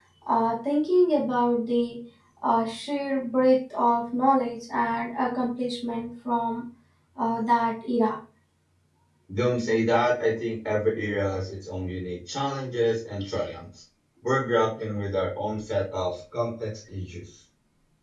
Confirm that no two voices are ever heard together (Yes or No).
Yes